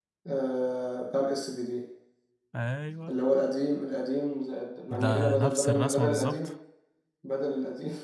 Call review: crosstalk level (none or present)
present